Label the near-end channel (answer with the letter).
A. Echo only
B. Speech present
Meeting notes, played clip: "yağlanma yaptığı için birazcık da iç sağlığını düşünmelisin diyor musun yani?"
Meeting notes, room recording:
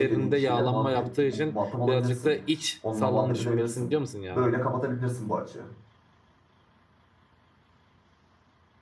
B